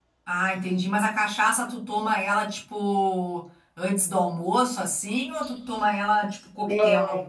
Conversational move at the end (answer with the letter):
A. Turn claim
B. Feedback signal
A